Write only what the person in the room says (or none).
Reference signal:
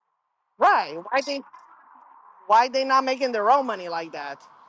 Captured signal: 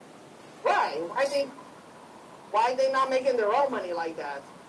none